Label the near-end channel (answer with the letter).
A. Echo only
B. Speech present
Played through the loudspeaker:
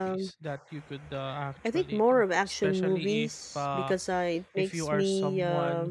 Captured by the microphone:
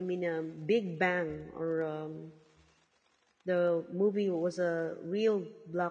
B